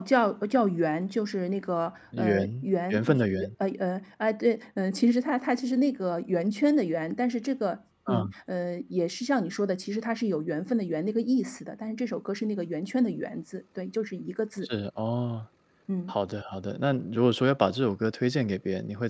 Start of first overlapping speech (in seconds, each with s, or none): 2.1 s